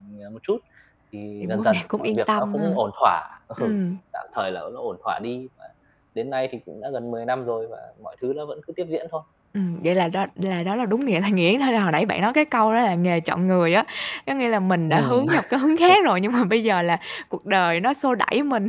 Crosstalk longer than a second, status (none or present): present